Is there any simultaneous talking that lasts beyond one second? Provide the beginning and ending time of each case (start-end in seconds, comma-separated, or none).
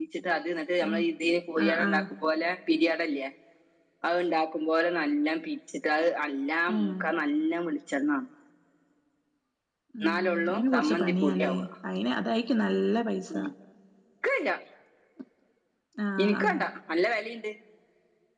10.0-11.5